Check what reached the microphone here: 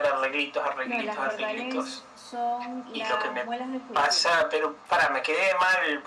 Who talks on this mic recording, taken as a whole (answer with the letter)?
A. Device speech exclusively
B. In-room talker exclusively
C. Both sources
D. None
C